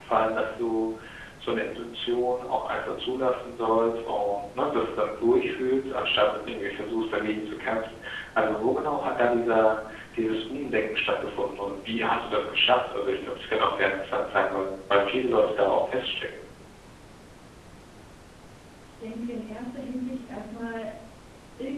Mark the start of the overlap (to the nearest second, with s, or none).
none